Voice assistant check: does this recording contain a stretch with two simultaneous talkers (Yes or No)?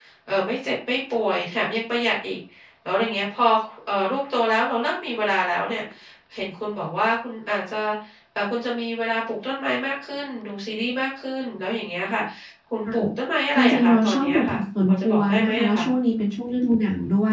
Yes